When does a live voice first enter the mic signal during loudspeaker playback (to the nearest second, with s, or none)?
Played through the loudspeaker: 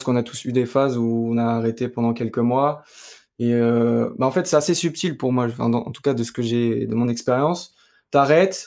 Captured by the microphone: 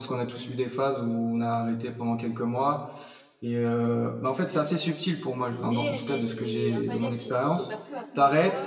5 s